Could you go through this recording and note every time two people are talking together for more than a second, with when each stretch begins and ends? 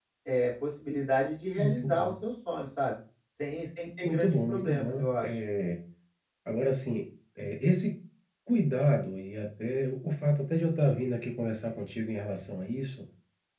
4.0-5.3

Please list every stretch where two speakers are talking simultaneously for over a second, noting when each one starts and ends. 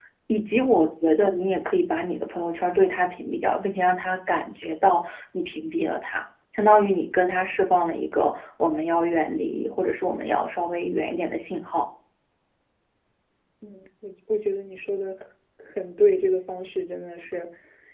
none

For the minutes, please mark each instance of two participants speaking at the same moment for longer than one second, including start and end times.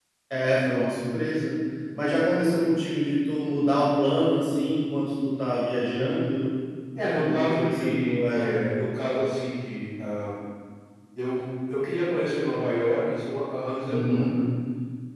7.2-8.5

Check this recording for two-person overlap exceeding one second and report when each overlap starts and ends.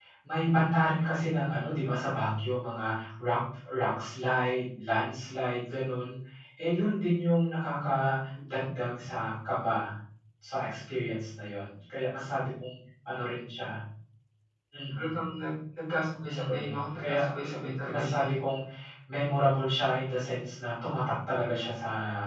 16.2-17.4

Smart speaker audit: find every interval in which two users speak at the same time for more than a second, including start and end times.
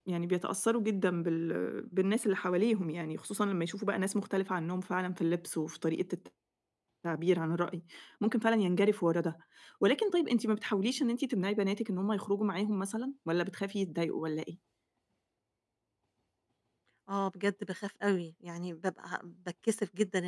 none

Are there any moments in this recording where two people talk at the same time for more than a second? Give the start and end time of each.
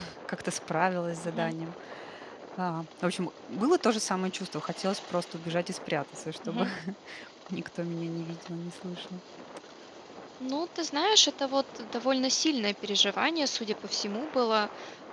none

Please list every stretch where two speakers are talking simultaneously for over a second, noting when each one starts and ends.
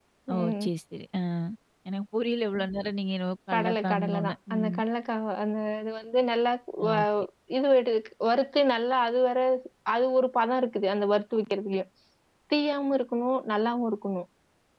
3.5-4.8

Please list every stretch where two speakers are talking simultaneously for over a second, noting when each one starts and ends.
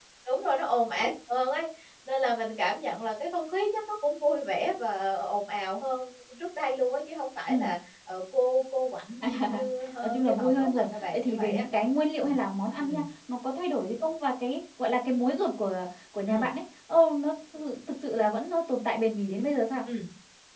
10.0-11.6

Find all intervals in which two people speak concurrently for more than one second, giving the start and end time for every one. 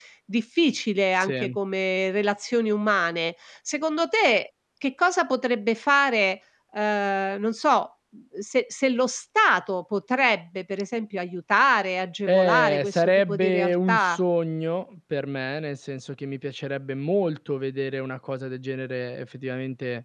12.3-14.2

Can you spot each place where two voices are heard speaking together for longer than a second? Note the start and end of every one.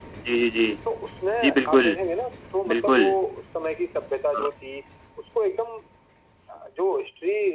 none

